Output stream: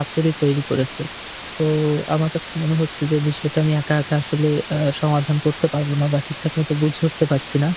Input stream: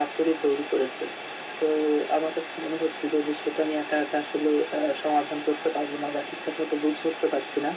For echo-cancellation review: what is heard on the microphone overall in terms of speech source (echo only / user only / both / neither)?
echo only